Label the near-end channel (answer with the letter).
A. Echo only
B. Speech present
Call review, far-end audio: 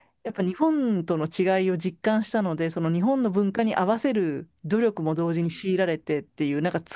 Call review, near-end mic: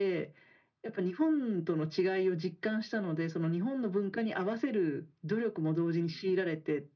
A